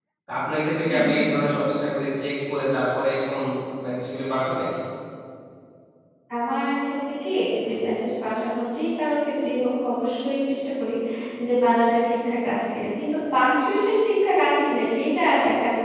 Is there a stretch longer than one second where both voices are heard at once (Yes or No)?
No